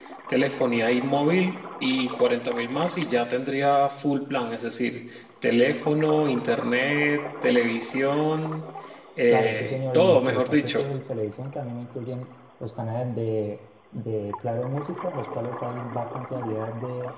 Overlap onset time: 9.3 s

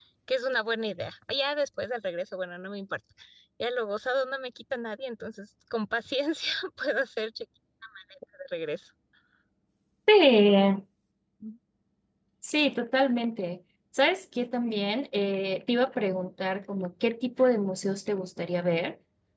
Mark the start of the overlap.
none

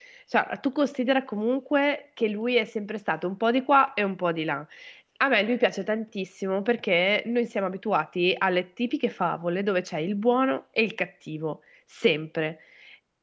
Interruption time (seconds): none

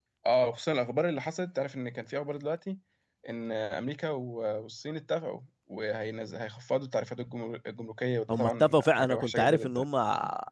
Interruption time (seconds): 8.3 s

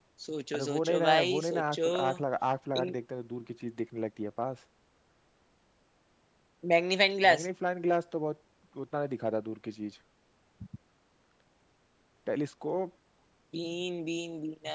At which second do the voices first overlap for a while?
0.5 s

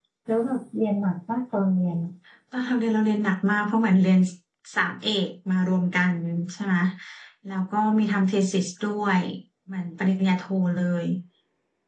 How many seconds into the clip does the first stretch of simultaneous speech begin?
none

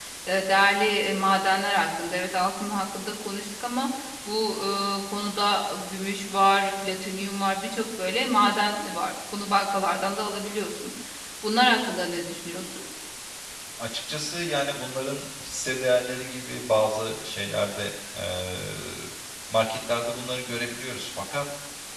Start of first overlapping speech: none

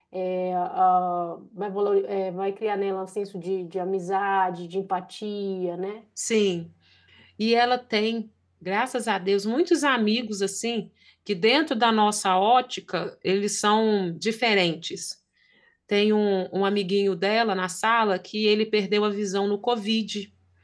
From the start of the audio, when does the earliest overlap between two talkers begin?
none

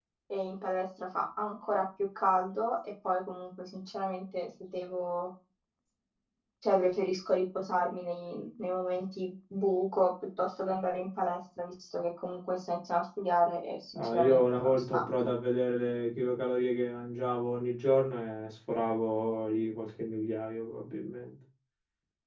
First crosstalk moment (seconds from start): 13.9 s

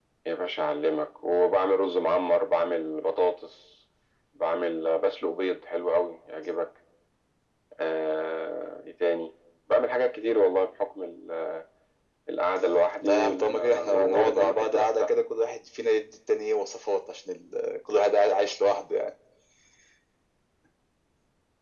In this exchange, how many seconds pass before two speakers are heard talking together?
13.0 s

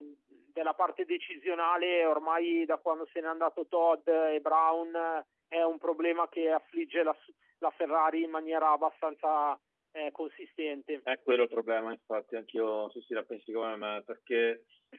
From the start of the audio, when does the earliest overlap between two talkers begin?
none

